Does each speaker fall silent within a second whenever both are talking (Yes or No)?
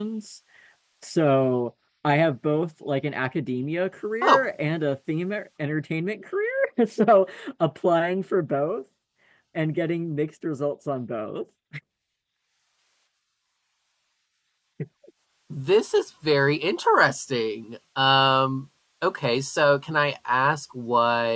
Yes